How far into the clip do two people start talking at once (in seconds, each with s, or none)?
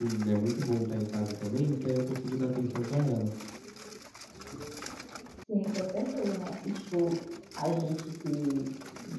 none